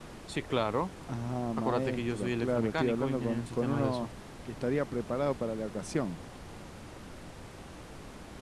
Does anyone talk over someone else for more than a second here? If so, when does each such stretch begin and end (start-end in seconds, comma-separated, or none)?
1.6-4.1